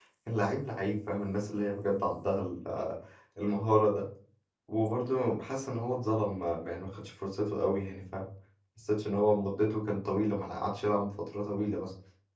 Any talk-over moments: No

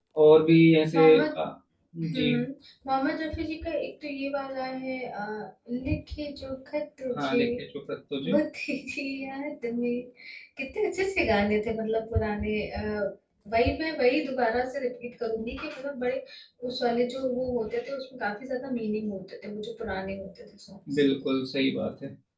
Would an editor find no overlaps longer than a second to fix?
Yes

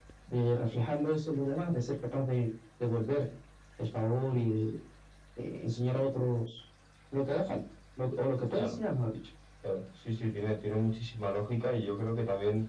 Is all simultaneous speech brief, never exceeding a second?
Yes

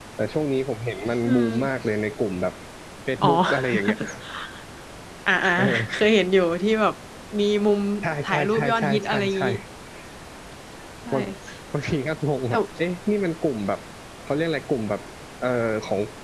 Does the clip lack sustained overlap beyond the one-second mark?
No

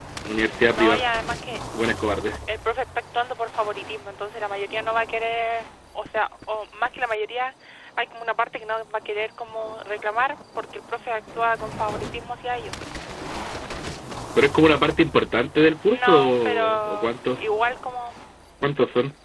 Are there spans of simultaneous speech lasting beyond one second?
Yes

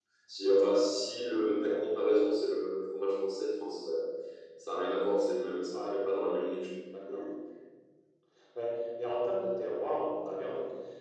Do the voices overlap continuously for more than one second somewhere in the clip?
No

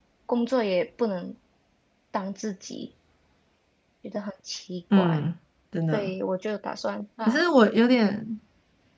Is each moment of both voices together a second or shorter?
Yes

